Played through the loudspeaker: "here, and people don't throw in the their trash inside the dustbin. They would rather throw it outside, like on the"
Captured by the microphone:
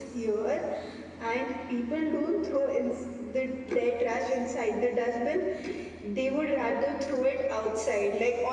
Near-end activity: none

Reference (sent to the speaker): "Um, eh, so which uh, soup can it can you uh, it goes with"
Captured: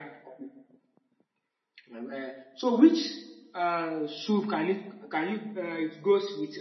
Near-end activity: none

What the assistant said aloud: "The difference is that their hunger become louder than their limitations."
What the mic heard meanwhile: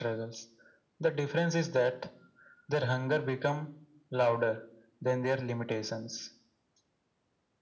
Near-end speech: none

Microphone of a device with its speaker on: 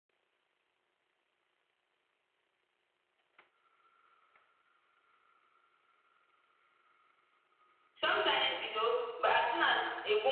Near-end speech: present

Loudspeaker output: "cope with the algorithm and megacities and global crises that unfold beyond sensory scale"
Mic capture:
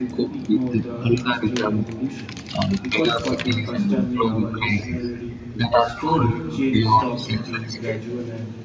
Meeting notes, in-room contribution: present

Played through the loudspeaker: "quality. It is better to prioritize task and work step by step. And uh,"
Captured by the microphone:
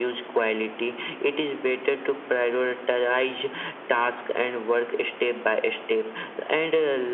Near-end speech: none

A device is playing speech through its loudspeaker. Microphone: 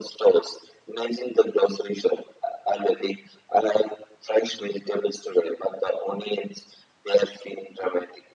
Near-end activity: none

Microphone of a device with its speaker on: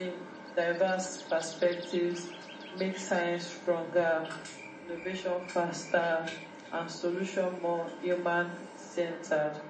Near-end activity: none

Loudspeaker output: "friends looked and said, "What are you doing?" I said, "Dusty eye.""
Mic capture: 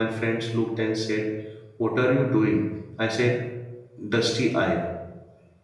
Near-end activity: none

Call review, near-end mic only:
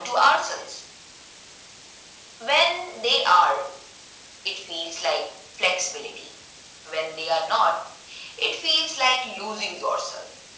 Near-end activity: none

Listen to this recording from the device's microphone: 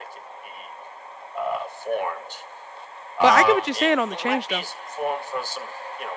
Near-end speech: present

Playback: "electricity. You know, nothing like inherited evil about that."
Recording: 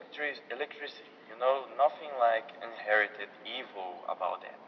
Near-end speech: none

